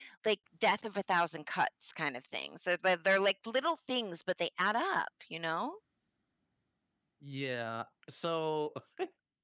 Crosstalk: none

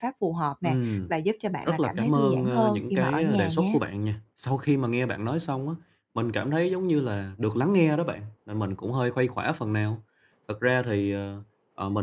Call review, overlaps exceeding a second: present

